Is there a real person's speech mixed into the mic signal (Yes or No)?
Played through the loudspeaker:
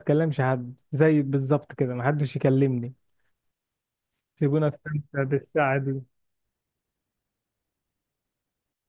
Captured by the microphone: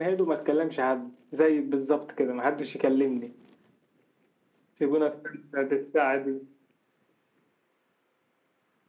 No